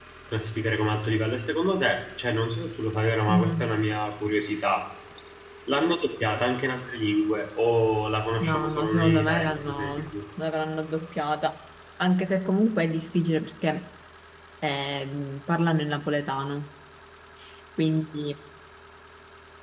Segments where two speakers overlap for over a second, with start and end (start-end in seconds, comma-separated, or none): 8.4-10.2